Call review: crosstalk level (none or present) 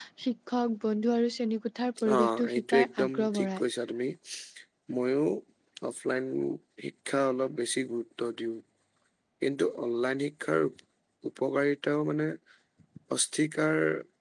present